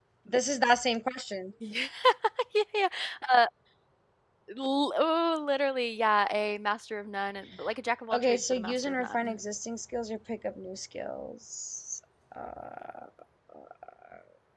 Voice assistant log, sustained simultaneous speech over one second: present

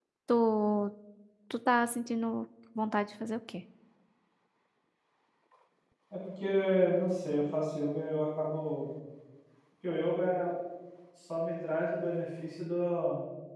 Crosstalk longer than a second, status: none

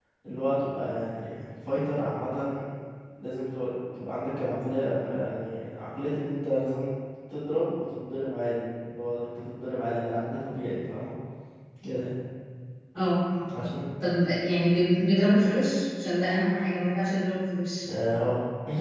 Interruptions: none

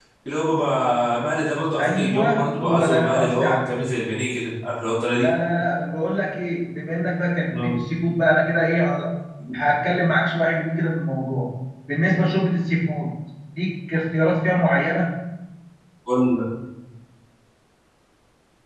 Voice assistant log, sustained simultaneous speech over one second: present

